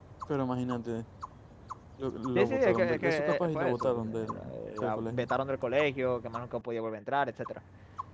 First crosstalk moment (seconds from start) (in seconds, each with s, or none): 2.4 s